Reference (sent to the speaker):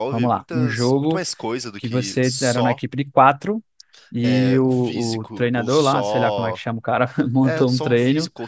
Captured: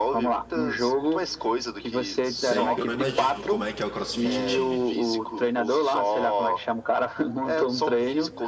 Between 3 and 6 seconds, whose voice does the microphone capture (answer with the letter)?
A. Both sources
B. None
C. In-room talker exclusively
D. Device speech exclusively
A